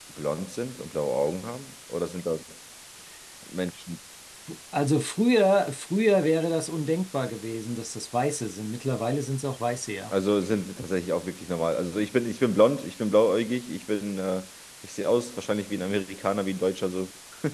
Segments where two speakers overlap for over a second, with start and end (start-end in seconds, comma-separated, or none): none